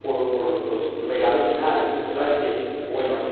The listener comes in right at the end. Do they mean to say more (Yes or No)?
No